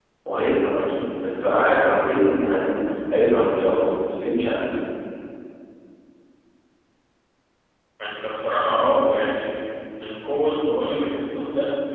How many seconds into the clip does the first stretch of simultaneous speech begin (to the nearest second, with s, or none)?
none